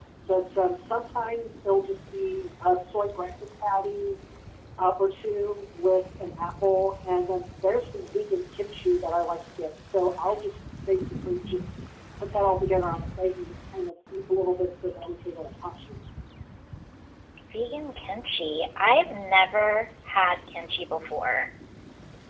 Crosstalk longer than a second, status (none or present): none